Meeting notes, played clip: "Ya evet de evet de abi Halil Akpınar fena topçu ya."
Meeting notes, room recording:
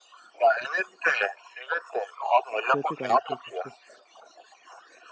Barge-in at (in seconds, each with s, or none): 2.7 s